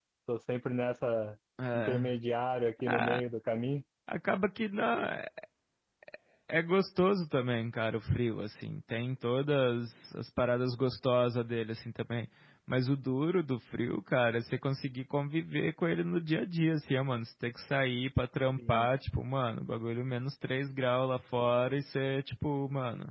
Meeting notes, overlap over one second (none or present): none